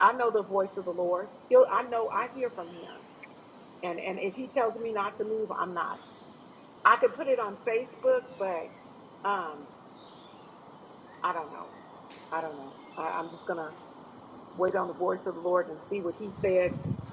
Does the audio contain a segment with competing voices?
No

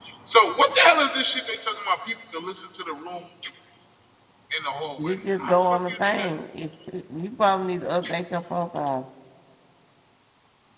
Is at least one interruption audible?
Yes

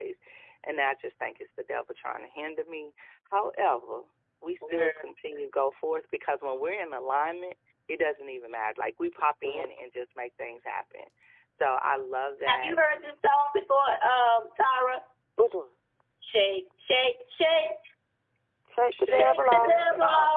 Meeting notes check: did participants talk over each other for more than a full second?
Yes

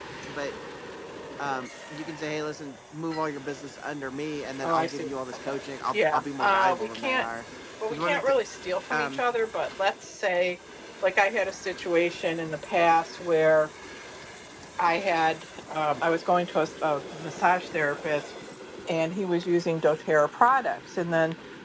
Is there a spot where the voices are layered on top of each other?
Yes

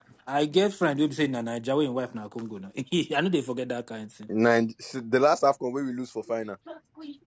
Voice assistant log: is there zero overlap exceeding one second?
Yes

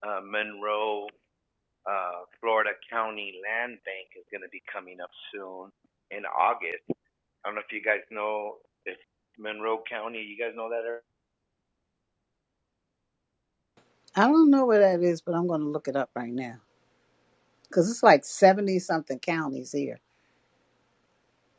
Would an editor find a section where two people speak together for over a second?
No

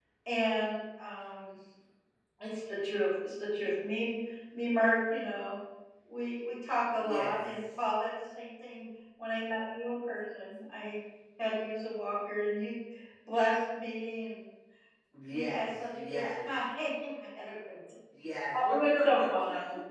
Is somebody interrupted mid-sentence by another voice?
Yes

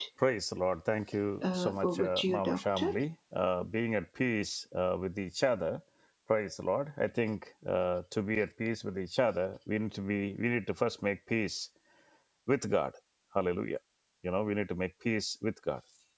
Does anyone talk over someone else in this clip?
Yes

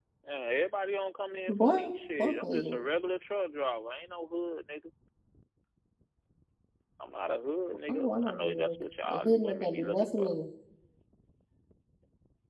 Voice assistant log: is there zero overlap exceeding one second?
No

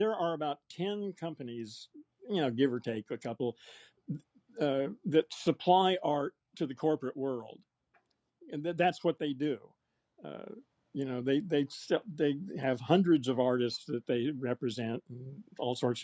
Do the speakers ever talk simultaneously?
No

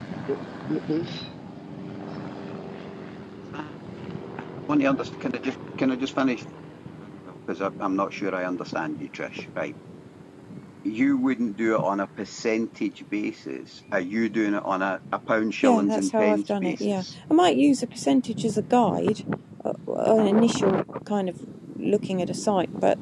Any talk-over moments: Yes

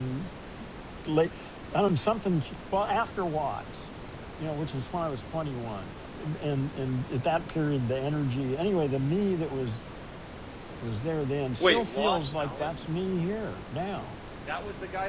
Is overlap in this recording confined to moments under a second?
No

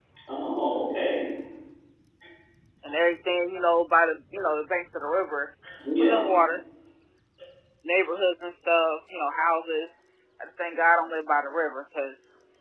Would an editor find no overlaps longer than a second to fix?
Yes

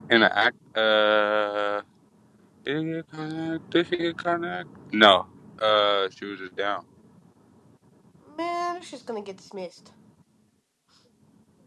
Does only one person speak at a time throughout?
Yes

